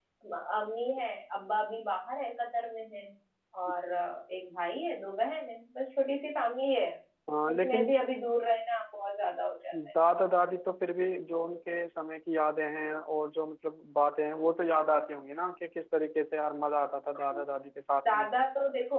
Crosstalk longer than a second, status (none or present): none